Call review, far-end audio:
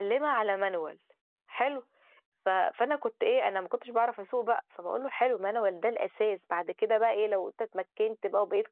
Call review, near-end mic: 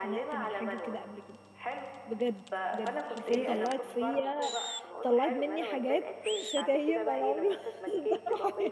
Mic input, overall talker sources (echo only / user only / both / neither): both